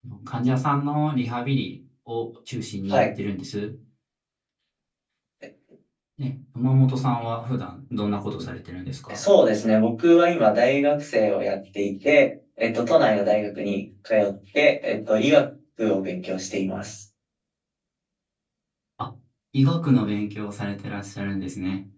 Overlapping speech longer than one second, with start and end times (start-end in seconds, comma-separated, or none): none